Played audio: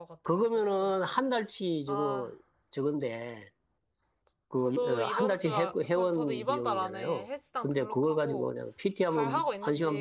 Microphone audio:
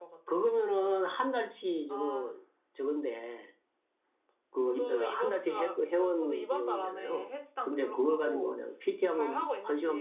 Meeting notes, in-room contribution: none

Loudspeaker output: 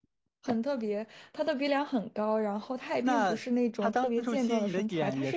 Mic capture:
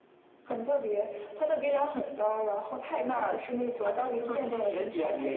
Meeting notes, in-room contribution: none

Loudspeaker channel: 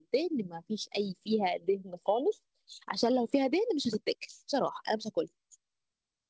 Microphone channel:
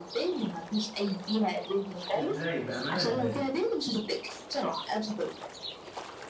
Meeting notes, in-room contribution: present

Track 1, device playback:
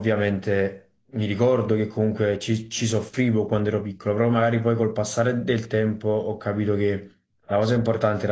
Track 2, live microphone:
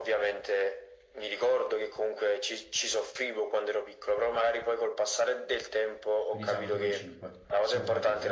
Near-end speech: present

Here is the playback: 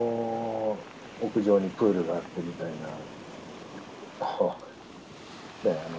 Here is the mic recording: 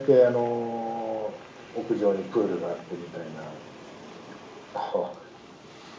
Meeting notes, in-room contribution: none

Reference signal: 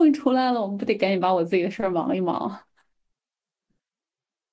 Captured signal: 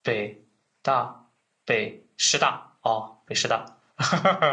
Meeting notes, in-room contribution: present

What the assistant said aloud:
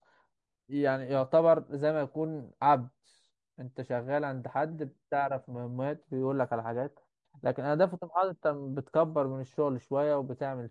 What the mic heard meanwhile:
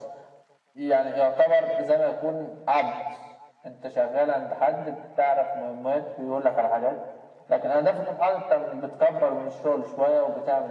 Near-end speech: none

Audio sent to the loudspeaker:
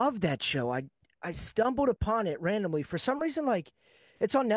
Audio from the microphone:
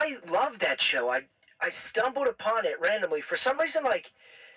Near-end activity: none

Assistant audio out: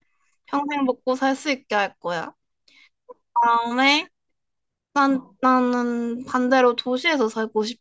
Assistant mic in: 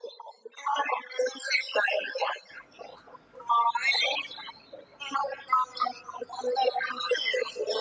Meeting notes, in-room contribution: none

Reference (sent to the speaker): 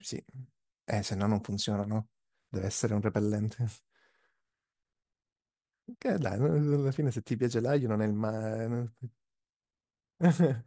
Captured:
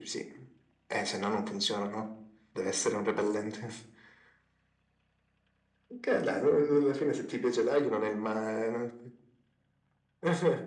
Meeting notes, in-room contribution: none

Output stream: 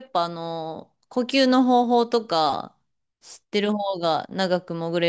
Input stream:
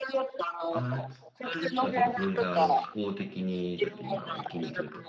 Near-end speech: present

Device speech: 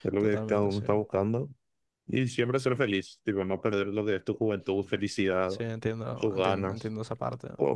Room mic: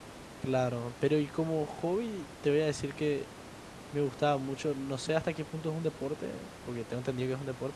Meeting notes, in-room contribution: present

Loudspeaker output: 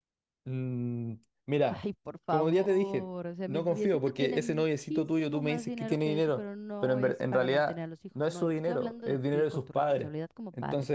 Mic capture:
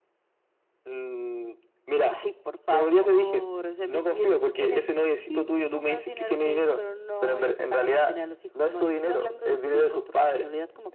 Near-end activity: none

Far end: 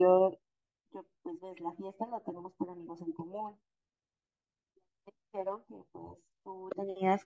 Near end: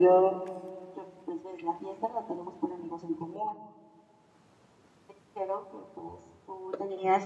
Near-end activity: none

